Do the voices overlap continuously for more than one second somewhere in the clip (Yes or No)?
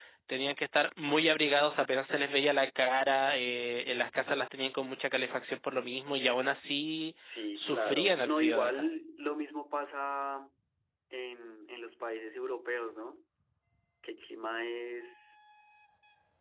Yes